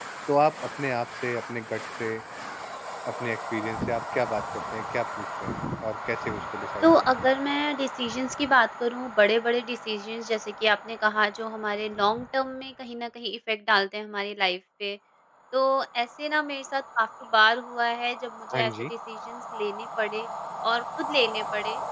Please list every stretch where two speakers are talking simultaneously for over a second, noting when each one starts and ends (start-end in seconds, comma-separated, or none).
none